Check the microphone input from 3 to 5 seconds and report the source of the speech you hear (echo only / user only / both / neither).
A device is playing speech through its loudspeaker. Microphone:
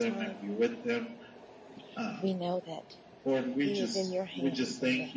both